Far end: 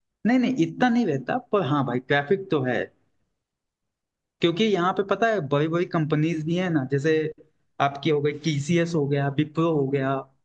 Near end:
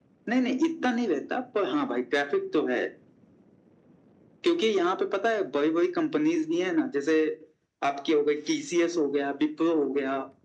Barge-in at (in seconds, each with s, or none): none